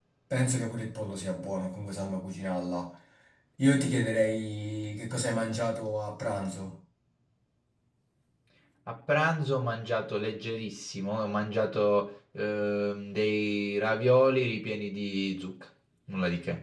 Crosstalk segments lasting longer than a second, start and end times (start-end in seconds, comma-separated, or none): none